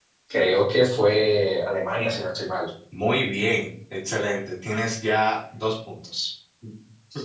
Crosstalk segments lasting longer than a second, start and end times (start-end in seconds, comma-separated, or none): none